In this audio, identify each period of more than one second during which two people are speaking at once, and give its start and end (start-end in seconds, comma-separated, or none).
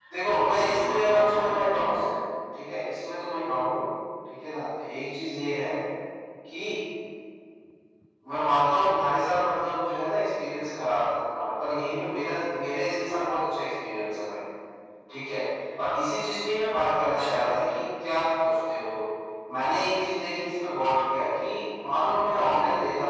0.6-2.0